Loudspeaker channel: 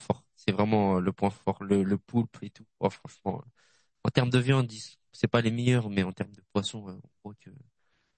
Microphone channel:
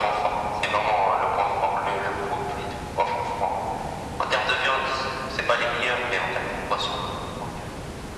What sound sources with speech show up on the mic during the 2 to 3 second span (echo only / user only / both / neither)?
echo only